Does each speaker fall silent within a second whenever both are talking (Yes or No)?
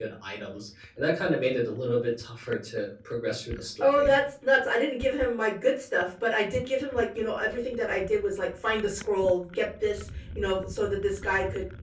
Yes